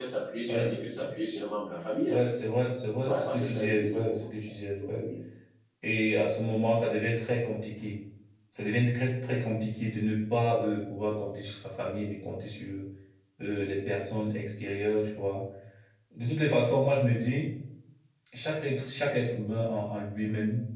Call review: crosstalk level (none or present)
present